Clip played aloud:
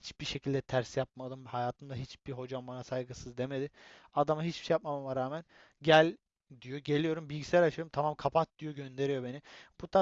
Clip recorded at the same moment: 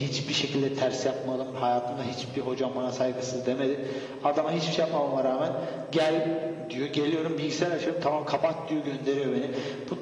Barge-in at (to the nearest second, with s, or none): none